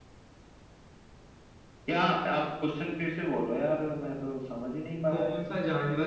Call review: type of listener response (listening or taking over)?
taking over